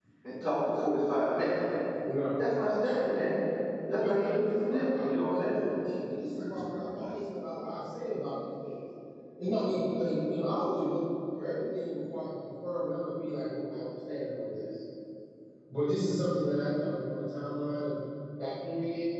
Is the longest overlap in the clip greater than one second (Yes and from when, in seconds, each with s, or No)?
Yes, from 4.0 s